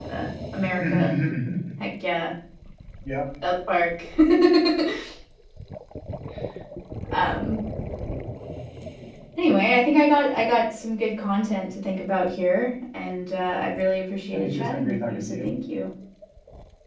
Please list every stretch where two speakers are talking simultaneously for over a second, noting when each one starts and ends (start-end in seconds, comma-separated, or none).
14.3-15.5